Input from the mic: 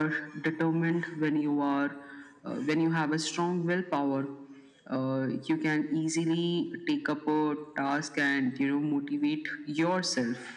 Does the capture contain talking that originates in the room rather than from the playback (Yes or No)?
No